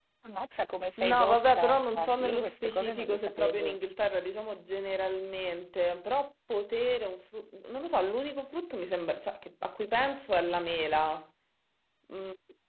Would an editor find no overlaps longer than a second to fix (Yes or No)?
No